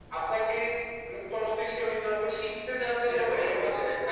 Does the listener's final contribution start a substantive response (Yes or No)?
Yes